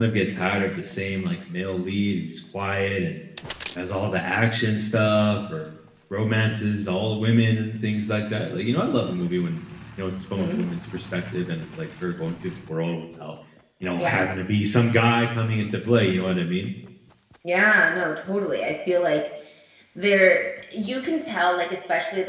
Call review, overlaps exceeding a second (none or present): none